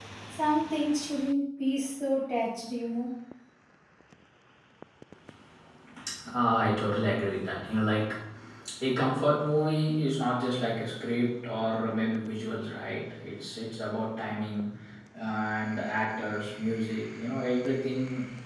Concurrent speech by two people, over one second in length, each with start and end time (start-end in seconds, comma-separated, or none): none